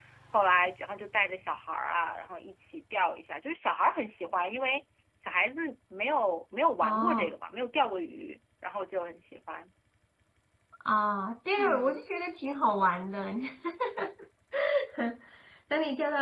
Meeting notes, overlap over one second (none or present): none